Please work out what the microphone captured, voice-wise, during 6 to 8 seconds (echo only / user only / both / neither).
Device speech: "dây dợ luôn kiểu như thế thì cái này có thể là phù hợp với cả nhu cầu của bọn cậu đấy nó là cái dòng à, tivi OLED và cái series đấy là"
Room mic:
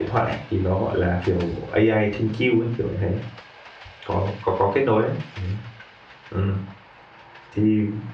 user only